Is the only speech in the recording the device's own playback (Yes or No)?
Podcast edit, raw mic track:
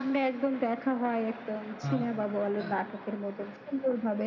No